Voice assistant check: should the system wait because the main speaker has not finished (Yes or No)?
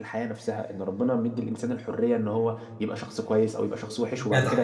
No